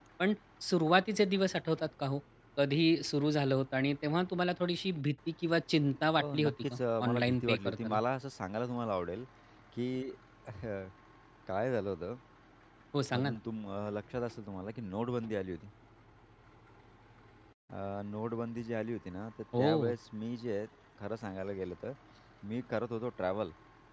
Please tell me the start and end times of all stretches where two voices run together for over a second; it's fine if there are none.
6.2-8.0

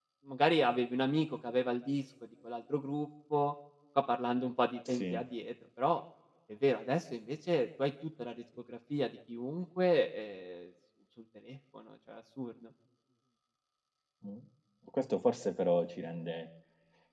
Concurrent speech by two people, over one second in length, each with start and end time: none

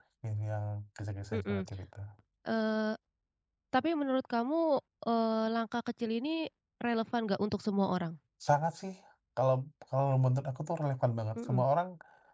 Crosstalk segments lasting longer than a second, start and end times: none

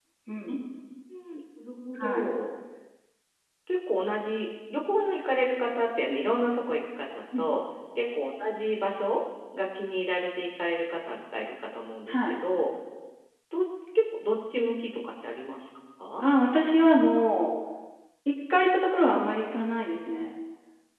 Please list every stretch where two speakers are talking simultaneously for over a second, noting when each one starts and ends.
none

